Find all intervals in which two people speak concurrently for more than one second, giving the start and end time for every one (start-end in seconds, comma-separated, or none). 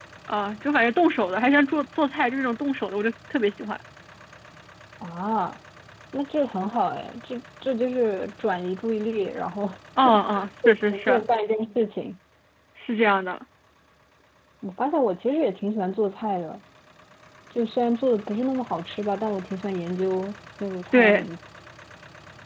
10.0-11.2